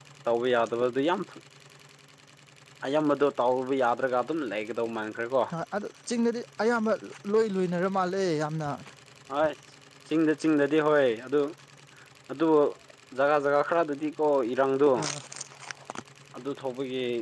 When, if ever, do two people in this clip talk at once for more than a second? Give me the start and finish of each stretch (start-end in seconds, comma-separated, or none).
none